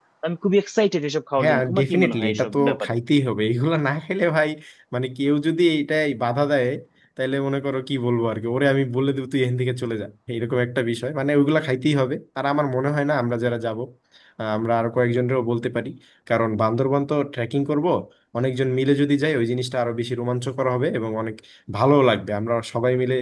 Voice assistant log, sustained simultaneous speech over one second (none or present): present